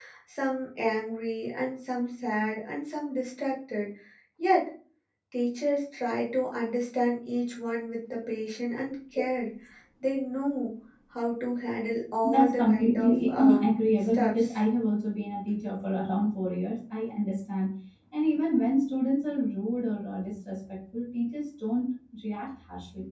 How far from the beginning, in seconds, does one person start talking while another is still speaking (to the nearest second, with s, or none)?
12 s